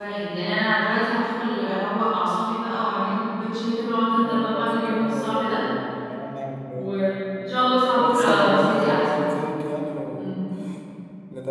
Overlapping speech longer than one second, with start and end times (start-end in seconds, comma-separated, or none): 4.2-5.6, 7.9-9.2